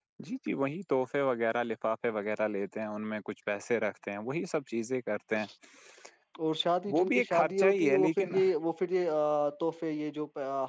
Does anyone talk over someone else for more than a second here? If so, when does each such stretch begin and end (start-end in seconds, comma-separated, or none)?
6.9-8.3